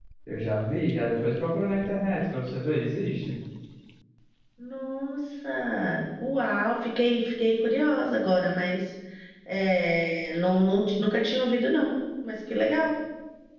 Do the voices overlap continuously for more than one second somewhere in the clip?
No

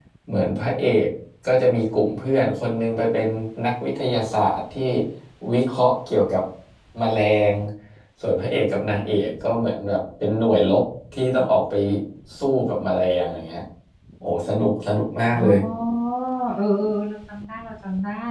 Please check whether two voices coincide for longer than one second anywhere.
No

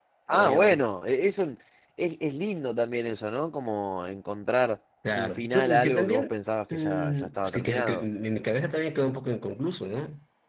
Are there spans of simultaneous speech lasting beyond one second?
Yes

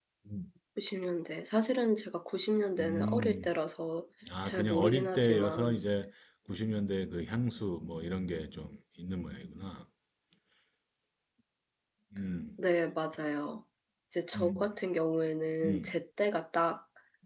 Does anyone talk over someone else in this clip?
Yes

